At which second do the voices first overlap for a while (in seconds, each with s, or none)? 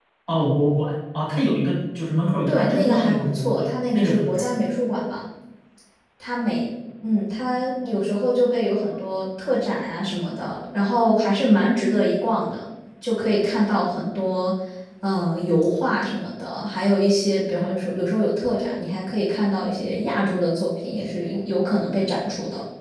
2.5 s